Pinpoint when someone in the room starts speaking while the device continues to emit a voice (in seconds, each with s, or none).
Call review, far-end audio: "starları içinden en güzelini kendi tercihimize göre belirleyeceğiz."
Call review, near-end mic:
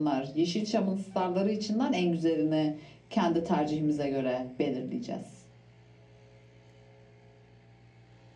none